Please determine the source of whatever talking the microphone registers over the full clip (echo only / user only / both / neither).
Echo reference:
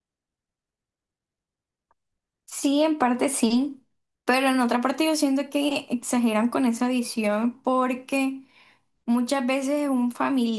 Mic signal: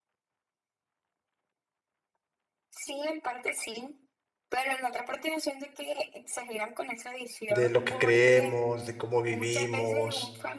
both